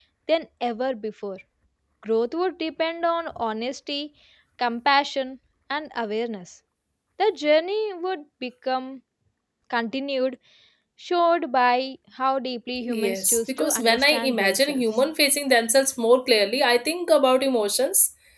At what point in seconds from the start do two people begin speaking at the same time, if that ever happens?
12.9 s

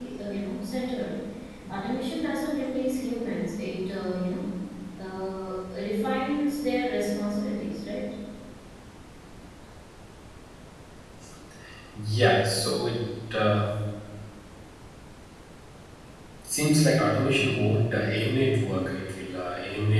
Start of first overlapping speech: none

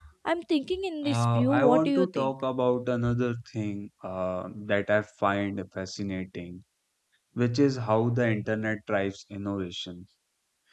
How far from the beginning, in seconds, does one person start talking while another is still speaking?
1.0 s

